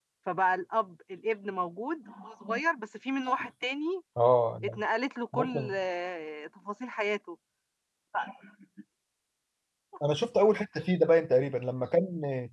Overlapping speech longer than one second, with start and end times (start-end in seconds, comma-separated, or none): none